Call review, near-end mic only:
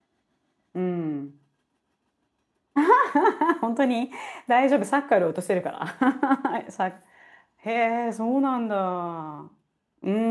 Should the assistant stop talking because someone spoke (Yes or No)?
Yes